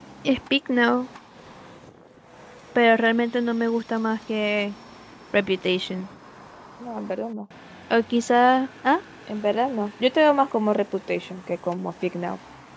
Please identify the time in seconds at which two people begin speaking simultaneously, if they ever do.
none

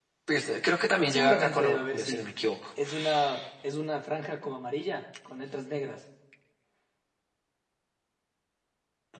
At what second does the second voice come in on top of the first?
1.1 s

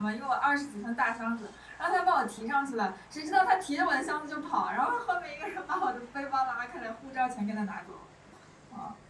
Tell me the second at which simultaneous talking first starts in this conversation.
none

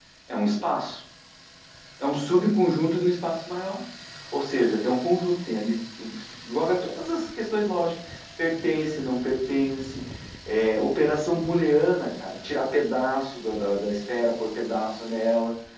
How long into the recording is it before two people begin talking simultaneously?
none

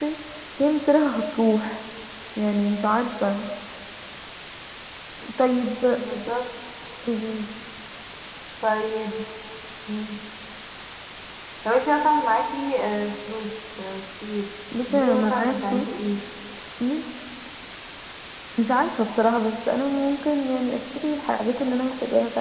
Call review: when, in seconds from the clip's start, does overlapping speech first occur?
14.9 s

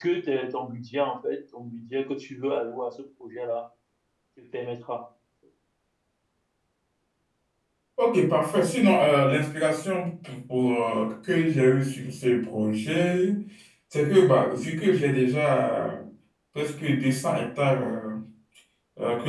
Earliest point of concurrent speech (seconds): none

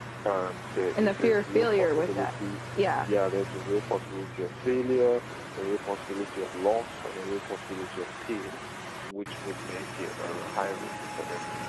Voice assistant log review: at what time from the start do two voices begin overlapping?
1.0 s

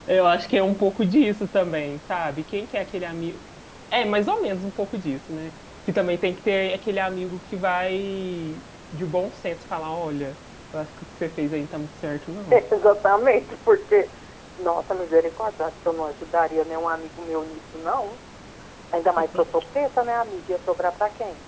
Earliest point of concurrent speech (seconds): none

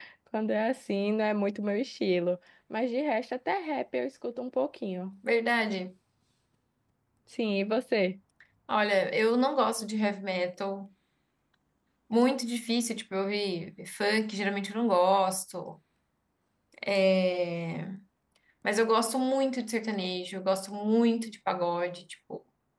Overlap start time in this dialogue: none

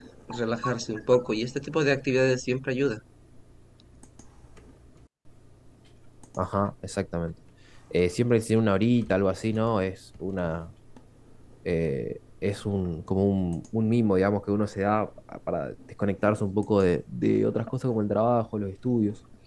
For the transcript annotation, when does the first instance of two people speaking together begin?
none

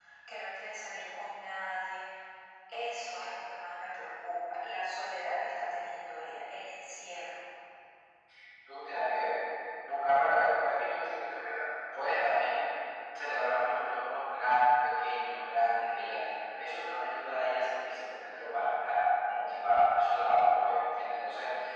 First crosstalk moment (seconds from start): none

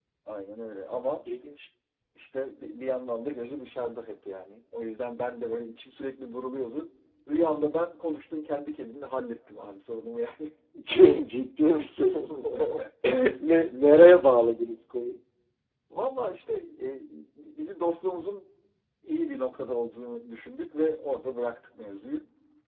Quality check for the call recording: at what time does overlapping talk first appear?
none

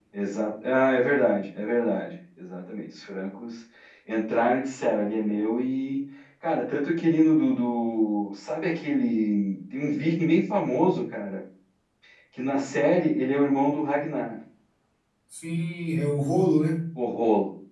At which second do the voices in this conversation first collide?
none

